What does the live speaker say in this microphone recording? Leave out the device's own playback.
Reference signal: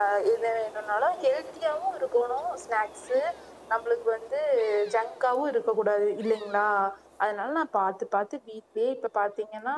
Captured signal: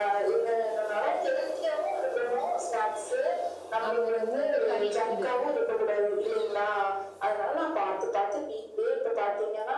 ஆமாங்க இந்த உளுந்த களி இது

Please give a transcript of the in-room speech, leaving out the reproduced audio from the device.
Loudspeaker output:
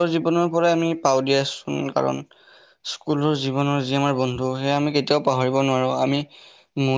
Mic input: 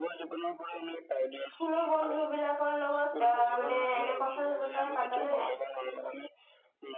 স্কুলৰ বন্ধু বিলাকৰ লগত এ মানে এনে কথা বতৰা পাতা নে নাই।

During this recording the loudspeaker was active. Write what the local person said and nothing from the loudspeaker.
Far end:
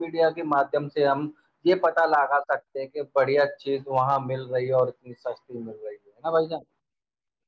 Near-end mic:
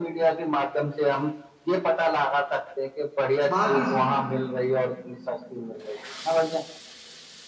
باقی

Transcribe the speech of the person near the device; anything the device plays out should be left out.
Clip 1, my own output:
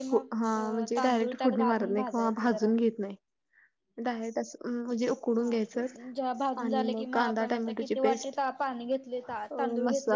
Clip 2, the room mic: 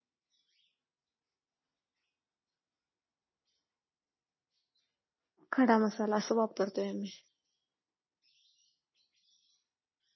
खडा मसाला असं वापरतोय आम्ही

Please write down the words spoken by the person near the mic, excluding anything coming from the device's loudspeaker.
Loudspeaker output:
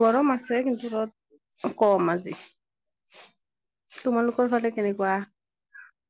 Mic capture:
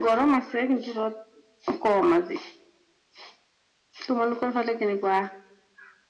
none

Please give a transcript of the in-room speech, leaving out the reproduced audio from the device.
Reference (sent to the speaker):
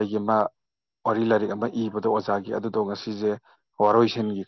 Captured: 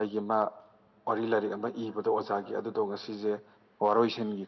none

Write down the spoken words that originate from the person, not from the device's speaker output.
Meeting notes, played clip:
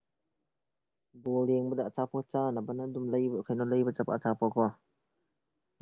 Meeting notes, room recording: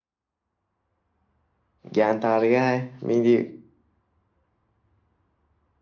ꯒꯌꯥꯟ ꯇꯥꯔꯒ ꯍꯥꯏ ꯃꯤꯗꯤ

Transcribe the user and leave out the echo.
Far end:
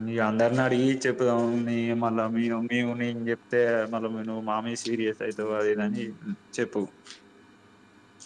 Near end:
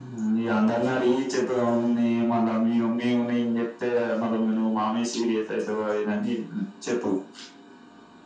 none

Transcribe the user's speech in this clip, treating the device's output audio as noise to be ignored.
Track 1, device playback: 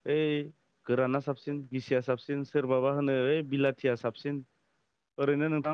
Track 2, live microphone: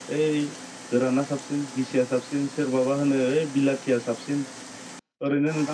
none

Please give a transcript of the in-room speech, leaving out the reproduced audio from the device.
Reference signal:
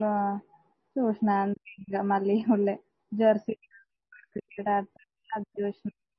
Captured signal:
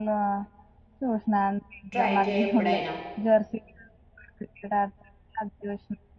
ట్రై చేయి ఎప్పుడైనా

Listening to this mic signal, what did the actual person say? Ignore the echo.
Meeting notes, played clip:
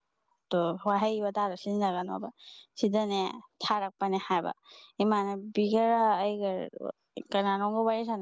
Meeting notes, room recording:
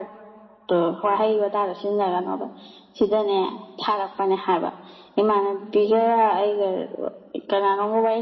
none

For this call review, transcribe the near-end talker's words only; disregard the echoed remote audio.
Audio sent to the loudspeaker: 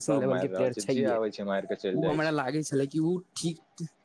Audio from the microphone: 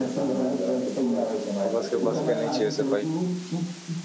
ओकरसब के बस के नै छै उसब

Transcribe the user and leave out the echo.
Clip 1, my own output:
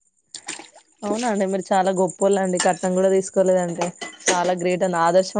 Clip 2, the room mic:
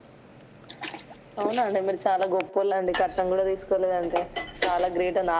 none

